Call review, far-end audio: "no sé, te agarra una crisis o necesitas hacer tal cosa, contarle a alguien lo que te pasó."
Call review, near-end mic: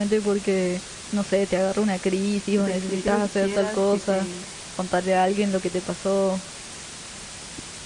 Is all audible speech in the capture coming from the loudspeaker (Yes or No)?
No